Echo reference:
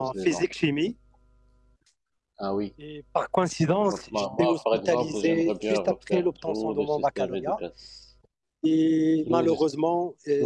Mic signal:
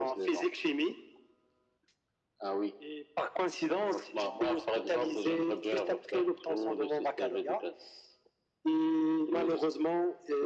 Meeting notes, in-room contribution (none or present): none